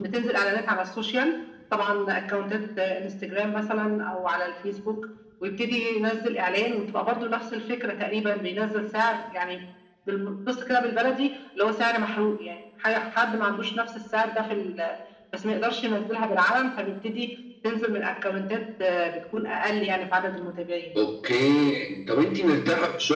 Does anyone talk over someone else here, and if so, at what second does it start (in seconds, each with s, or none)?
none